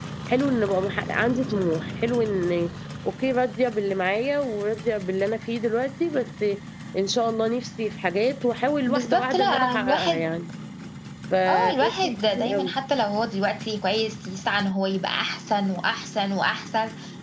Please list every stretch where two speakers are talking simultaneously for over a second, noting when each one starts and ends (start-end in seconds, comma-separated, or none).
8.9-10.2, 11.5-12.7